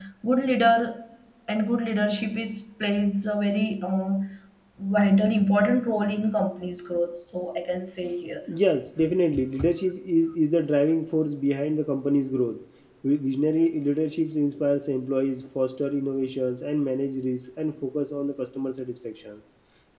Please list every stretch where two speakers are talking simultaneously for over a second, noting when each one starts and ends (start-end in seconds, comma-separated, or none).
none